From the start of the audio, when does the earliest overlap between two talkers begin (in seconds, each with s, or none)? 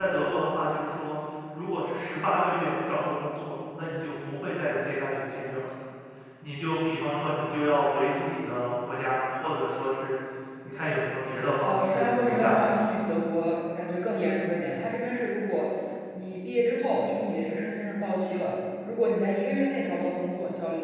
11.6 s